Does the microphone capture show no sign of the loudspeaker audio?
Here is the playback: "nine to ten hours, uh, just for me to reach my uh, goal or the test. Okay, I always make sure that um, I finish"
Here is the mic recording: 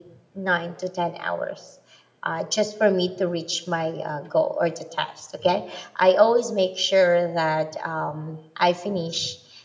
No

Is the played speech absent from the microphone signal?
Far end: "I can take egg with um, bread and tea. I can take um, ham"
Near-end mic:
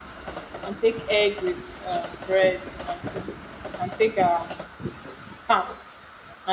No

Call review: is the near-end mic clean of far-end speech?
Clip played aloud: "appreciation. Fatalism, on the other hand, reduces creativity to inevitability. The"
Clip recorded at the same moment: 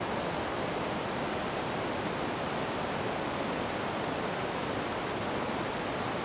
Yes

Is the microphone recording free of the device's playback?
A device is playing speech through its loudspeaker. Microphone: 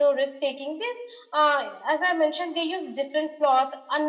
Yes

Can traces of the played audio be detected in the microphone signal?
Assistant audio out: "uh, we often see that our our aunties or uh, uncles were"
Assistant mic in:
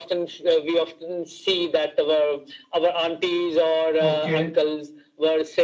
Yes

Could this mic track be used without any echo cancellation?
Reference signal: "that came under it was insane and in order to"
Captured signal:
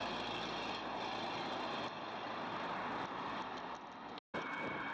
Yes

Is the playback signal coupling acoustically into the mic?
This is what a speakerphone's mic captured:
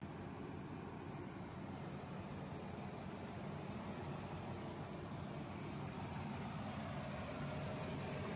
No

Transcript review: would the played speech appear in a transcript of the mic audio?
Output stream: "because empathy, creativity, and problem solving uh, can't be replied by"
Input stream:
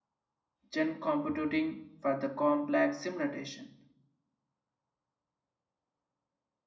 No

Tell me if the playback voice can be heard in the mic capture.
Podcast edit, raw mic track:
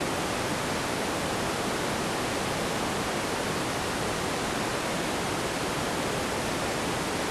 No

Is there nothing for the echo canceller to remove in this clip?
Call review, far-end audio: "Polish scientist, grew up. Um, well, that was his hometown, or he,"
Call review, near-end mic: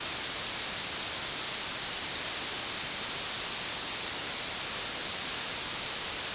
Yes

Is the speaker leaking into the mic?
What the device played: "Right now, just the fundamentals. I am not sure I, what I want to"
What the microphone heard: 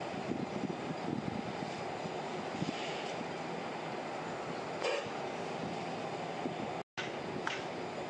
No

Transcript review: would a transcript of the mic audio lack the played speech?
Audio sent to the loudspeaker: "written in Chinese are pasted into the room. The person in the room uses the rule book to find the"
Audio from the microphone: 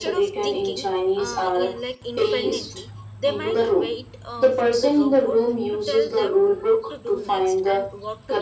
No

